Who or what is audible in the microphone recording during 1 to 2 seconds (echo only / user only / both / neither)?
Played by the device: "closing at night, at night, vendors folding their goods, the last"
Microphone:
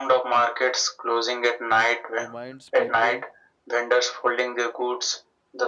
echo only